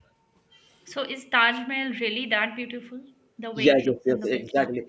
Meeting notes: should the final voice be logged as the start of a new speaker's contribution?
Yes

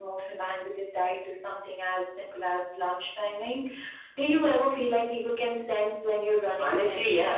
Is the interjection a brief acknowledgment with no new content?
No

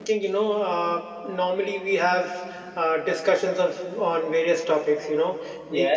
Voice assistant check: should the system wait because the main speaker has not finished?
Yes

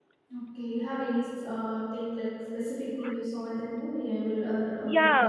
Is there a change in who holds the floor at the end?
Yes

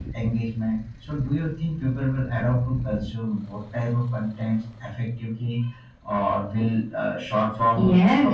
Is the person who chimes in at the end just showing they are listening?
No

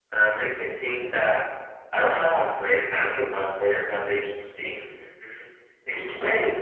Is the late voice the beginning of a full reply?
No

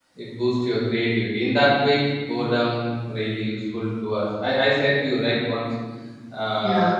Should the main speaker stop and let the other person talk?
No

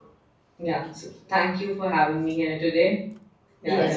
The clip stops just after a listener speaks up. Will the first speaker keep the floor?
No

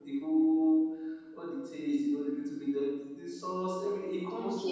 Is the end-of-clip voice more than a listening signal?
Yes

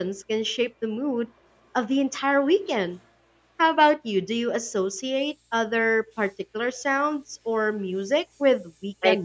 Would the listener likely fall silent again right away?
No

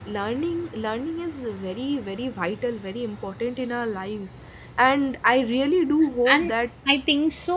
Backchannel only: No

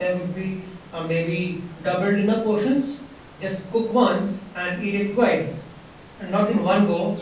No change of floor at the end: Yes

